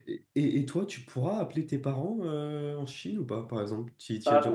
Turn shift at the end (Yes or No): Yes